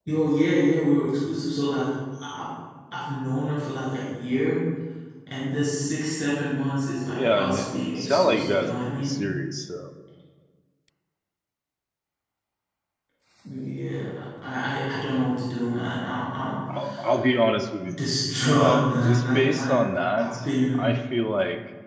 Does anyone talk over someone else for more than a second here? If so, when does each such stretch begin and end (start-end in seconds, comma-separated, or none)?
7.1-9.2, 18.5-19.8